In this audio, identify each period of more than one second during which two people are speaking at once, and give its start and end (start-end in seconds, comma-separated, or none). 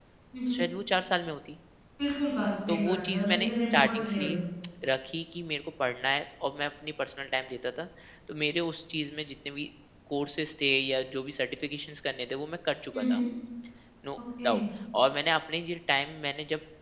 2.7-4.4